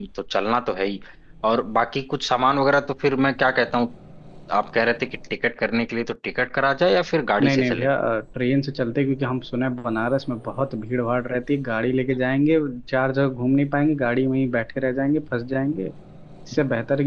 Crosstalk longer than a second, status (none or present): none